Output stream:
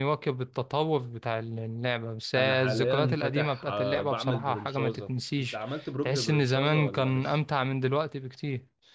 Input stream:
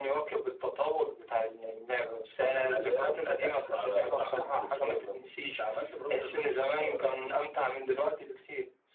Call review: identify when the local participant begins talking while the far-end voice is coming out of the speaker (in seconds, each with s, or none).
none